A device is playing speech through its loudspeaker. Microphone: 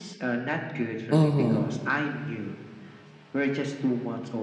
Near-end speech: present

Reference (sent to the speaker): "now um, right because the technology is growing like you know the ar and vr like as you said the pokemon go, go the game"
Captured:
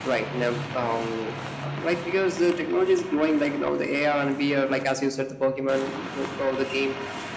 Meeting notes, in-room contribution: none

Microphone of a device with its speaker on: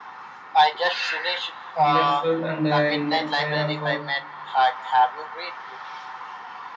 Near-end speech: present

